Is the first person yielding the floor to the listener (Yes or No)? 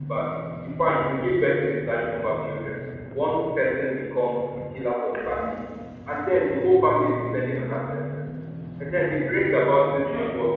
No